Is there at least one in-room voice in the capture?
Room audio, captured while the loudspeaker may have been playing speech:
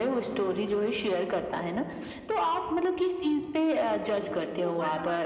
Yes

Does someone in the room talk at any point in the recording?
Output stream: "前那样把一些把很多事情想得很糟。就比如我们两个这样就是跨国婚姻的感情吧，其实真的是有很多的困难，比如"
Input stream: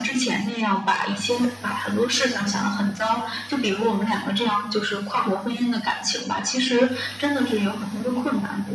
No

